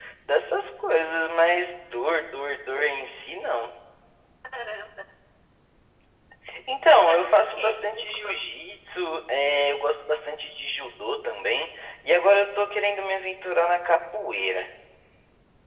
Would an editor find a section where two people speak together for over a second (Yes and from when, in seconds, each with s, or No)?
Yes, from 6.8 s